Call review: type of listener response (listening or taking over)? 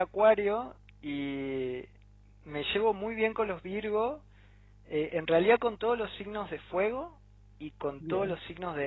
listening